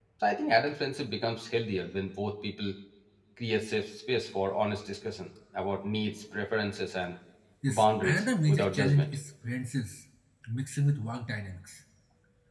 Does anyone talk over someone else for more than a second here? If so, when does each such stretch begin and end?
7.8-9.1

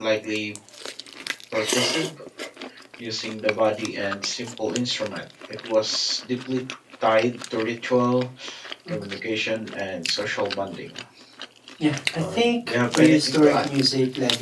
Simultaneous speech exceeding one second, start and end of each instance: 12.2-13.6

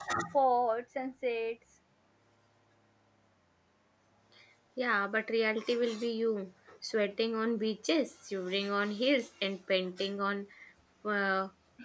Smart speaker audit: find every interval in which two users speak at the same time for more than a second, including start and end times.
none

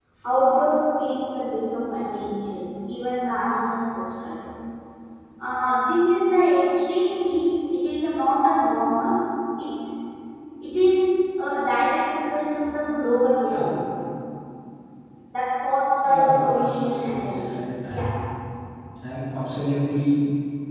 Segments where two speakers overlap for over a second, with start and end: 16.1-18.1

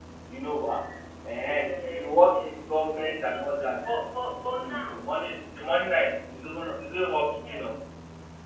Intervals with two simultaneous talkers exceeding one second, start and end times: 1.9-3.1

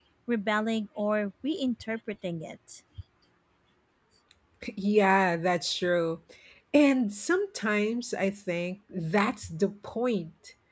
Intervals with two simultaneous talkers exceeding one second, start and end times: none

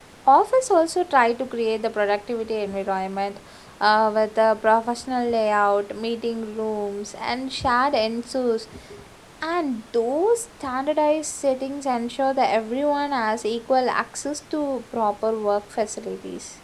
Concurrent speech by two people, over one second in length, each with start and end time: none

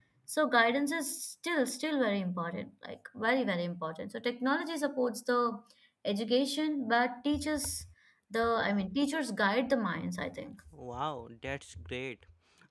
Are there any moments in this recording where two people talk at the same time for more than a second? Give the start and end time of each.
none

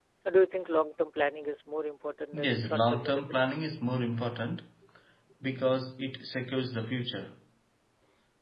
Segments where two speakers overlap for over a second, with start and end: 2.3-3.6

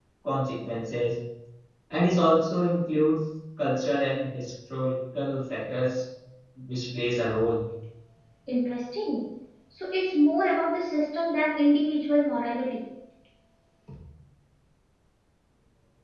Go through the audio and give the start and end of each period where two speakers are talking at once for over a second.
none

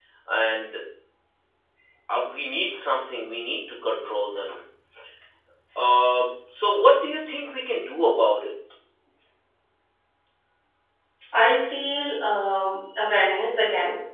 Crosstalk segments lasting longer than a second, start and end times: none

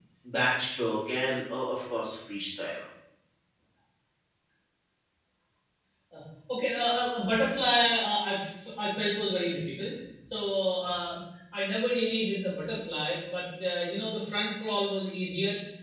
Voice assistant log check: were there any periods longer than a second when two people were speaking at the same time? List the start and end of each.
none

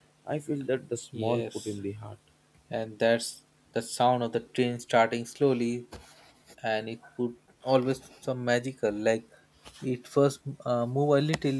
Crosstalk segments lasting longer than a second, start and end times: none

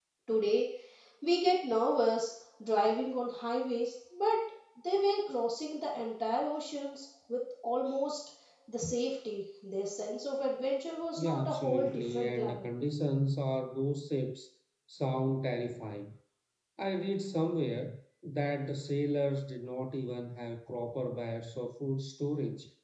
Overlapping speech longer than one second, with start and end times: 11.2-12.7

